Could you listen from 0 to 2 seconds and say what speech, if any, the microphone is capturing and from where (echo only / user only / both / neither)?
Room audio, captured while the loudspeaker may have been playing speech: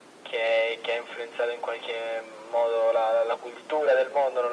echo only